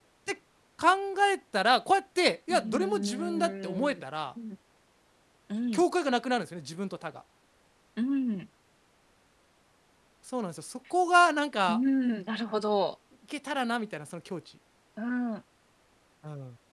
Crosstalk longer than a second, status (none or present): present